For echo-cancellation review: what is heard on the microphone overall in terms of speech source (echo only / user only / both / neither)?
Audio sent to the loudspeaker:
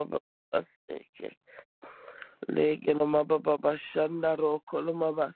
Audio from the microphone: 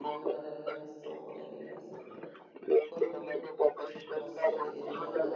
both